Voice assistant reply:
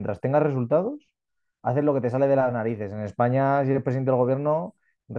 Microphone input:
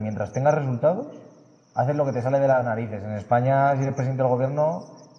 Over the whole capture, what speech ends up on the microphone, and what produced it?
echo only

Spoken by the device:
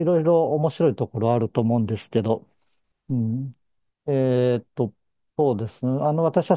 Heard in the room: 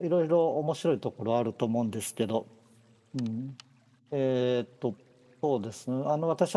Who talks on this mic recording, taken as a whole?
echo only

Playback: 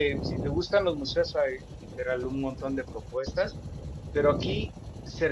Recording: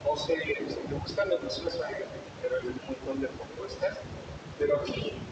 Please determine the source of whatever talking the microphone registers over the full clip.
echo only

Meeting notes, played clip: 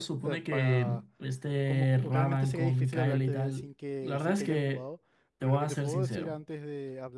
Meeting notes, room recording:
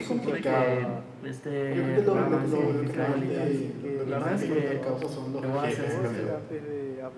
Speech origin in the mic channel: both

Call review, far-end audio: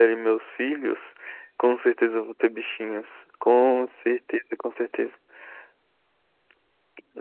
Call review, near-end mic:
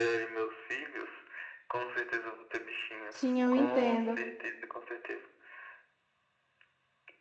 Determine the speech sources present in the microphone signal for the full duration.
both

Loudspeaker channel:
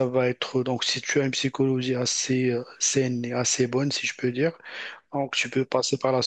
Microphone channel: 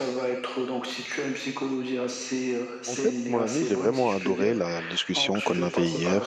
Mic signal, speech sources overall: both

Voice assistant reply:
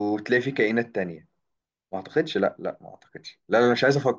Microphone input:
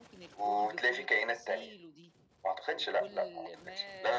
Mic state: both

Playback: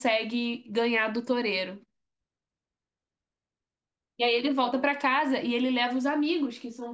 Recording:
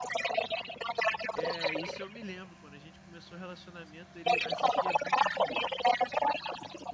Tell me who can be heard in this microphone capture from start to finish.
both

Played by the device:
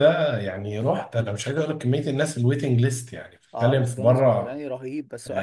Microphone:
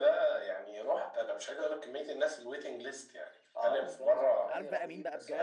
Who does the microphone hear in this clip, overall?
both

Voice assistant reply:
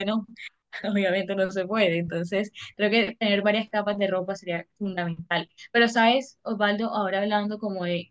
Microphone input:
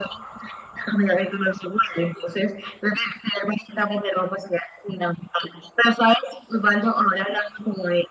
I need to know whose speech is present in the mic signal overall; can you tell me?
echo only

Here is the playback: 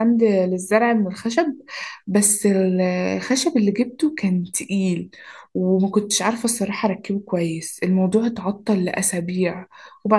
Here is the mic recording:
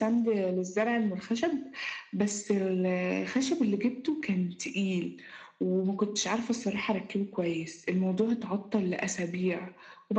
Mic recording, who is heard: echo only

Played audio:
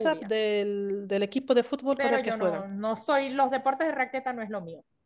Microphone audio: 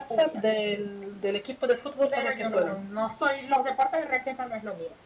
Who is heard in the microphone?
echo only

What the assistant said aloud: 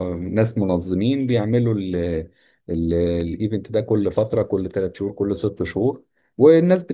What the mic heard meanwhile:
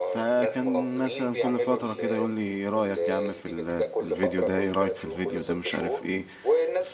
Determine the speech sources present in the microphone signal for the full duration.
both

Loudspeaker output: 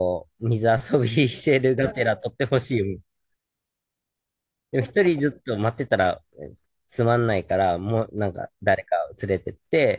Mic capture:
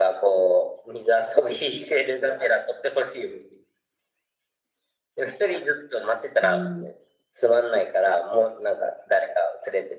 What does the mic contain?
both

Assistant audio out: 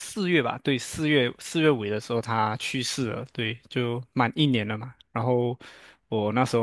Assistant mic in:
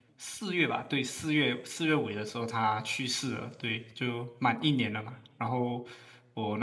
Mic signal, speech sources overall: echo only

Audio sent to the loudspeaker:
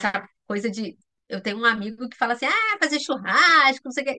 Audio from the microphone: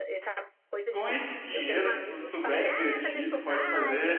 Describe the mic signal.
both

